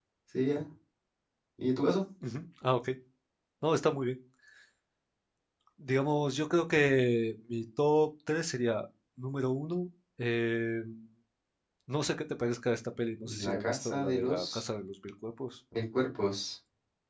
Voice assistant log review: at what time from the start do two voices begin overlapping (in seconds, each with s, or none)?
13.2 s